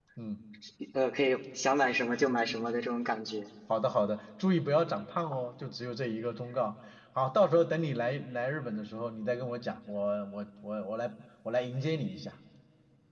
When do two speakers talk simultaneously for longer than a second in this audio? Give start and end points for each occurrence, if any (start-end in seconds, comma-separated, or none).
none